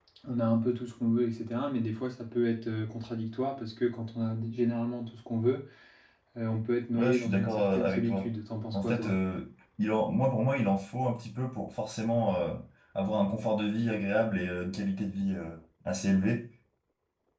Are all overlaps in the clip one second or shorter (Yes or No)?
No